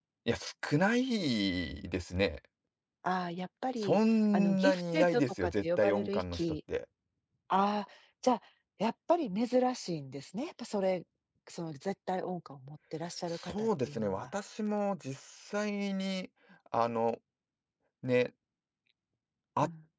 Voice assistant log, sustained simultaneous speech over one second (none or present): present